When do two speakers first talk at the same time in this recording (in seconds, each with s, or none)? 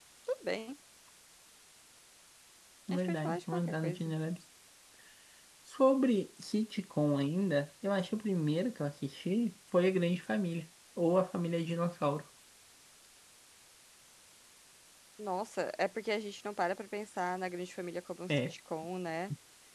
2.9 s